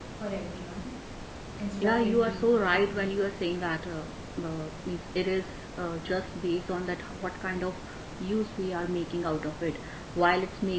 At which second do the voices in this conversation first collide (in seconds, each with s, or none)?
1.8 s